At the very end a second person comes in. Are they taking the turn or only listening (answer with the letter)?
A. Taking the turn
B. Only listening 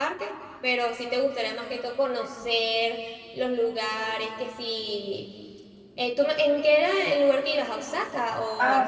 A